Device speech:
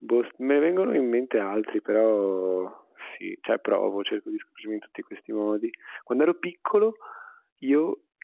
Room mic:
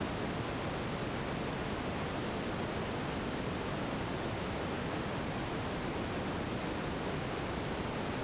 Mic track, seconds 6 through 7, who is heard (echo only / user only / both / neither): neither